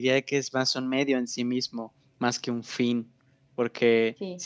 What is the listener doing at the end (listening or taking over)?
listening